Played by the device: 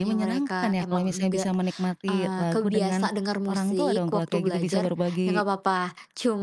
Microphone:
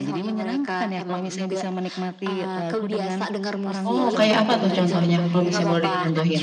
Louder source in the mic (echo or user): user